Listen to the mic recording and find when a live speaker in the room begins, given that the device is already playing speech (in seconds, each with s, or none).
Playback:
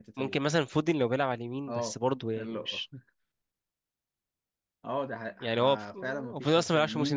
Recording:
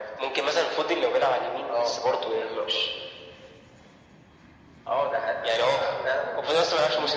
none